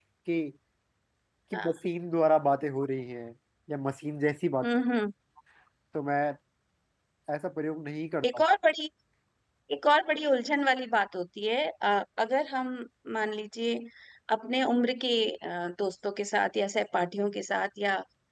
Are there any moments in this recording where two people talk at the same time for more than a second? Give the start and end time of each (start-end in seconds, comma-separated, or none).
none